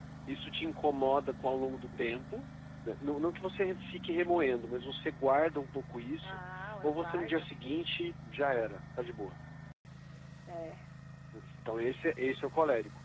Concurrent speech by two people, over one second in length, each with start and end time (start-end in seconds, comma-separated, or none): 6.8-8.1